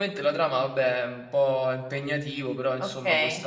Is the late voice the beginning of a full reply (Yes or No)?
Yes